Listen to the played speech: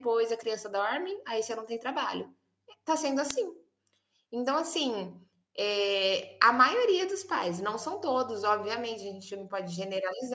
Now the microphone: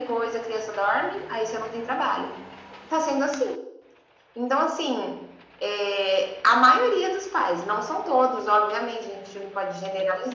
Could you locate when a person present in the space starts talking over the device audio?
none

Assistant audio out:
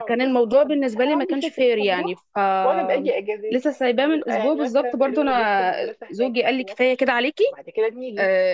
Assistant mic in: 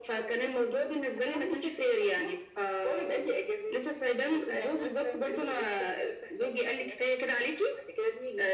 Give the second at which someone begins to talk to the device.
none

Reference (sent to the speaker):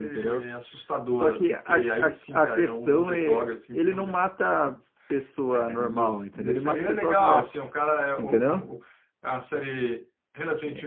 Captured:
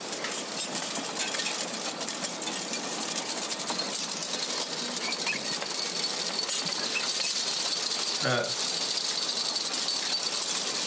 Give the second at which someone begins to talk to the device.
8 s

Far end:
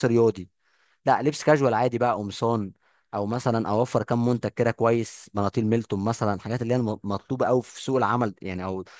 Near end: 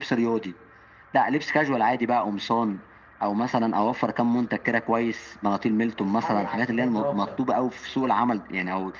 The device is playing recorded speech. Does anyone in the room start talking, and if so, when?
6 s

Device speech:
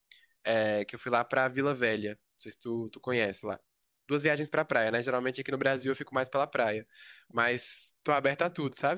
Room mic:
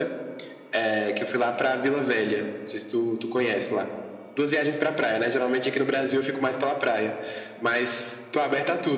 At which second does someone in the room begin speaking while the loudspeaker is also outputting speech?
none

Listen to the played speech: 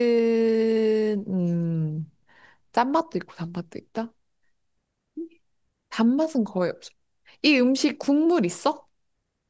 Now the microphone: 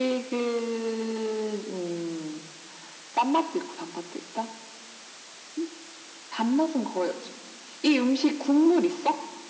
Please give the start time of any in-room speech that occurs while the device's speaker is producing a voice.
none

